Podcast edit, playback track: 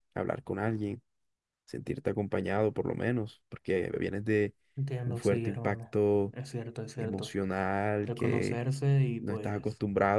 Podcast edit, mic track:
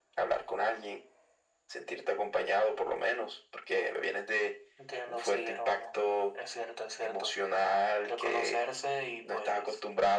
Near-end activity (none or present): none